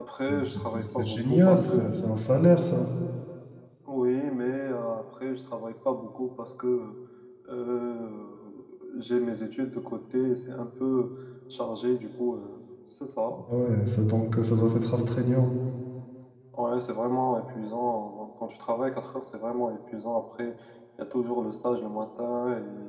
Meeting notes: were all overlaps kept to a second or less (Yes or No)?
No